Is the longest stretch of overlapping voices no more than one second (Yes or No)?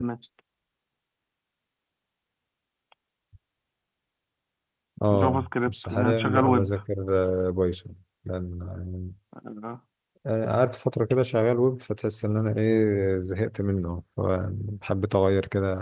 No